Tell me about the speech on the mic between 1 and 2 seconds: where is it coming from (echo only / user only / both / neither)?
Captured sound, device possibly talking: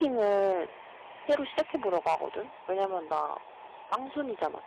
user only